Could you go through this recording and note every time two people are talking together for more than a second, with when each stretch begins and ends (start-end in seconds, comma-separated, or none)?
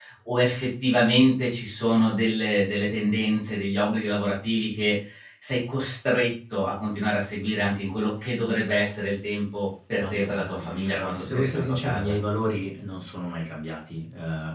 9.9-12.2